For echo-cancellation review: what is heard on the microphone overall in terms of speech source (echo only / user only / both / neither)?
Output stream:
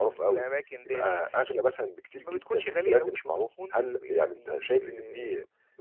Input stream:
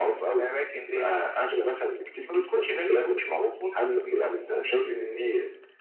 echo only